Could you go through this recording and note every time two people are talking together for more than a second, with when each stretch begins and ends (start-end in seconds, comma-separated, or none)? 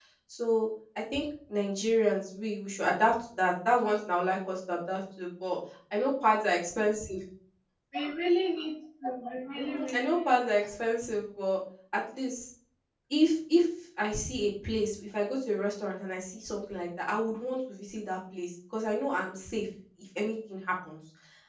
9.6-10.8